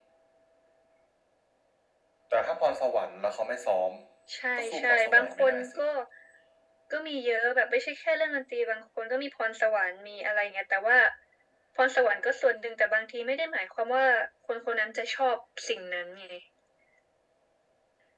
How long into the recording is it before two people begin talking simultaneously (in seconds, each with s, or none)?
4.5 s